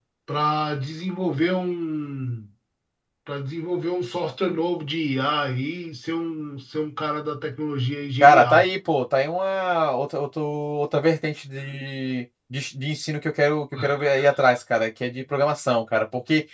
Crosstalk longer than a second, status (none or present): none